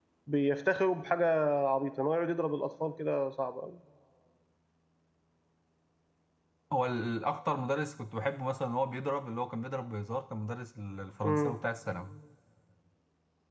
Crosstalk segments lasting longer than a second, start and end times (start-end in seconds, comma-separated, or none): none